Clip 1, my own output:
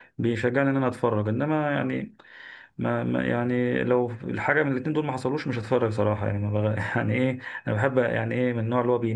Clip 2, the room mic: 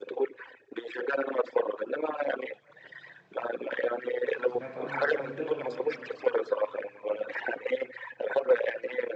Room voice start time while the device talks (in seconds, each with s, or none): 4.5 s